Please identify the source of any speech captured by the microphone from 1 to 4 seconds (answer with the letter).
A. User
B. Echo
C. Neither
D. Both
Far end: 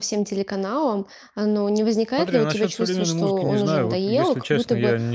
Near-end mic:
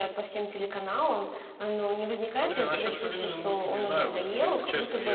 B